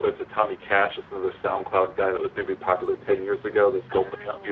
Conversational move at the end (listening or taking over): taking over